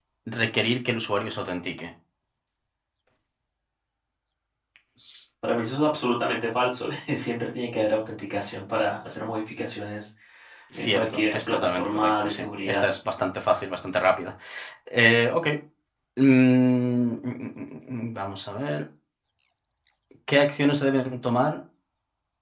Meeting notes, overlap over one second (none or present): present